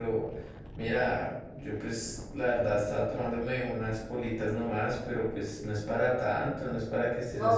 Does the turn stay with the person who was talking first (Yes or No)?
No